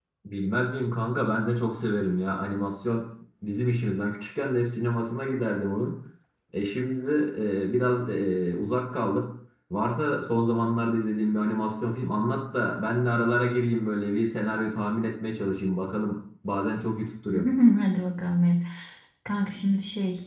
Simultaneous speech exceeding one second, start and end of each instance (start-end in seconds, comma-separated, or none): none